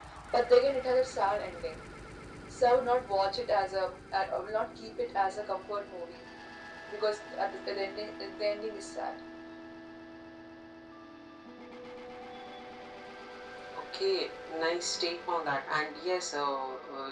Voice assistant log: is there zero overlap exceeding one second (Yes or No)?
Yes